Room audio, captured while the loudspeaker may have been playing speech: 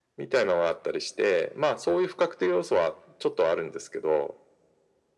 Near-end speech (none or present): none